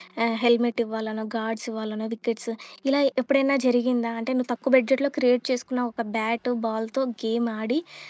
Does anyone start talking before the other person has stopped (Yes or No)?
No